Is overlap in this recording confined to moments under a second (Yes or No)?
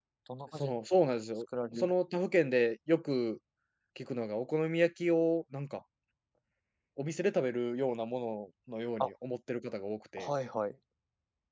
Yes